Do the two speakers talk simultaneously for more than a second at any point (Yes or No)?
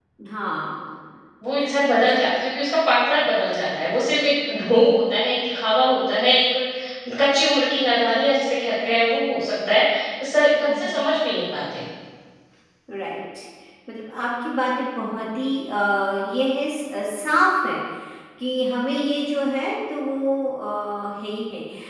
No